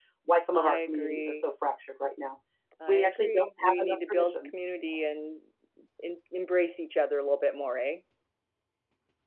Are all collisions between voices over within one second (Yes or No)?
No